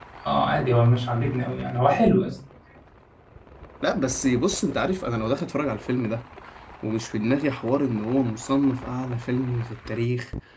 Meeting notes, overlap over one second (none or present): none